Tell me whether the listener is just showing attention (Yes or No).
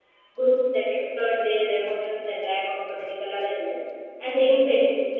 Yes